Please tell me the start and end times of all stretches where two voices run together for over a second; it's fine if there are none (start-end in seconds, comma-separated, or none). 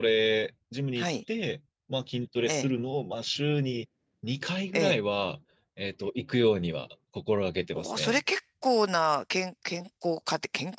none